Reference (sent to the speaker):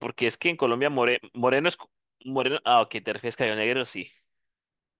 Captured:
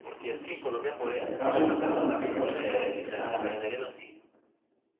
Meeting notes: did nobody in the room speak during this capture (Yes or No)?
No